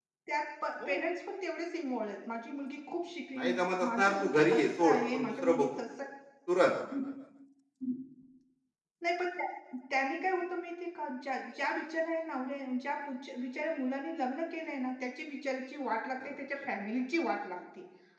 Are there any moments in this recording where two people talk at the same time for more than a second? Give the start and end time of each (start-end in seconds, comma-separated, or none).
3.4-5.8